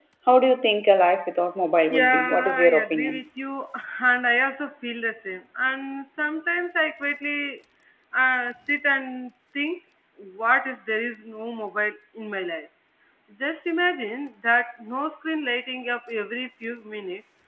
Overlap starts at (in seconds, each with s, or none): 1.9 s